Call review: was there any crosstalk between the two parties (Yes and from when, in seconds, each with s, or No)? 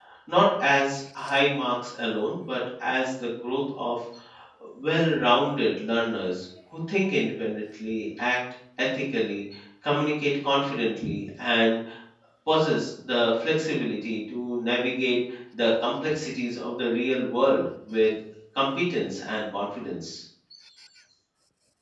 No